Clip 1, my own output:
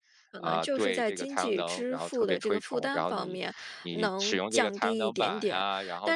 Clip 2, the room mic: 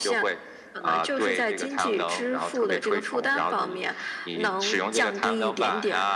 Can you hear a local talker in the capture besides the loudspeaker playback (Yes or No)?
No